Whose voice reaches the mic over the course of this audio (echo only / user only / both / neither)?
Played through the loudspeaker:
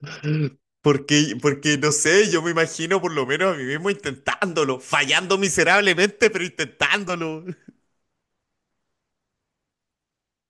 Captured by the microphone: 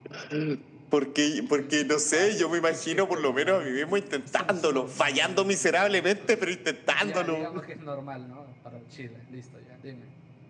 both